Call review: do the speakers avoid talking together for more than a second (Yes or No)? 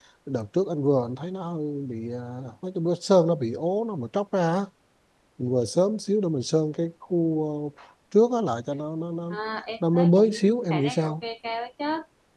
No